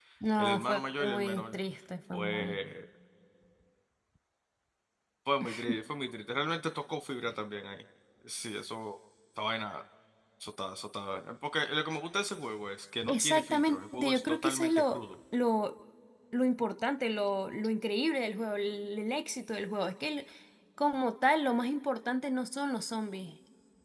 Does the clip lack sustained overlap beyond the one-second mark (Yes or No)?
No